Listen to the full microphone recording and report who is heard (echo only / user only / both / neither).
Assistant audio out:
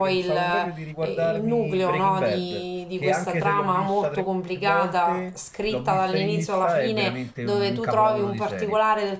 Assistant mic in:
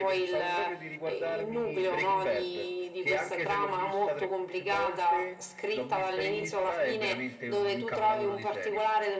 echo only